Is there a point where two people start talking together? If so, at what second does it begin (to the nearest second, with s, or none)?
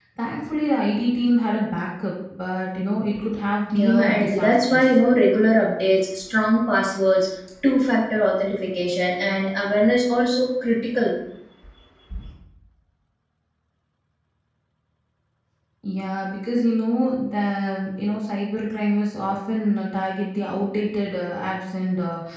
4 s